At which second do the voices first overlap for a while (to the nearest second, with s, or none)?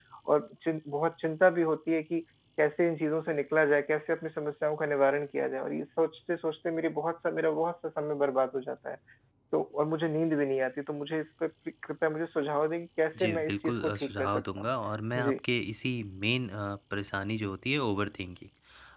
13 s